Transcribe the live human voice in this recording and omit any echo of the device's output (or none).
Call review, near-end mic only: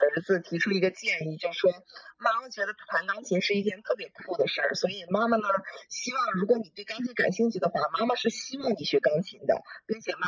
none